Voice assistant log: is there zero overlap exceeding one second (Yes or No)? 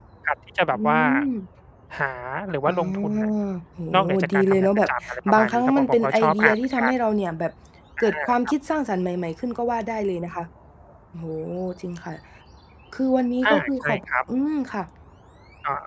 No